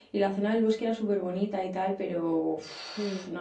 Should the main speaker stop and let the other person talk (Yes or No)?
No